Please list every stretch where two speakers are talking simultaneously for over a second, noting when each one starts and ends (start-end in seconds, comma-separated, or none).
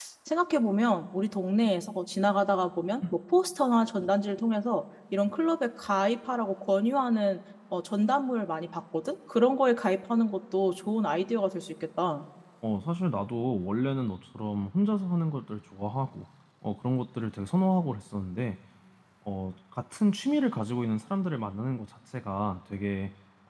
none